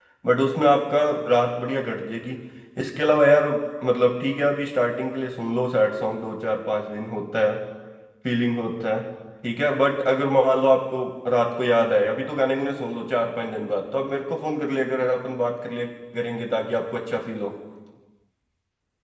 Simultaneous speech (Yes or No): No